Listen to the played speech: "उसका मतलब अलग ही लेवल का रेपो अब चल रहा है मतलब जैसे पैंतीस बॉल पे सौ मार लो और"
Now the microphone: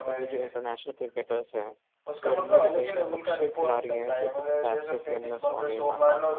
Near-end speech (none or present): present